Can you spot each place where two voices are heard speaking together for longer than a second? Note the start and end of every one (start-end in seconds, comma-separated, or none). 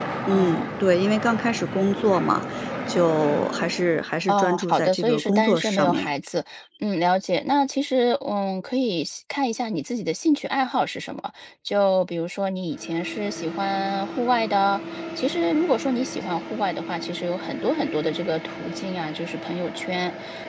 4.3-6.1